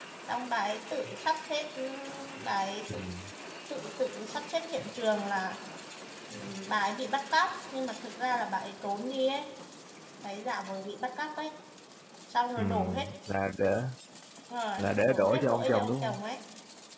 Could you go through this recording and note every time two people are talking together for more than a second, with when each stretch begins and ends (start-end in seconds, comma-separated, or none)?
14.8-16.2